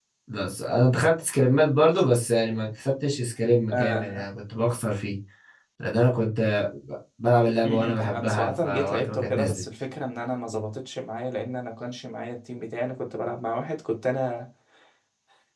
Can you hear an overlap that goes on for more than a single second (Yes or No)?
Yes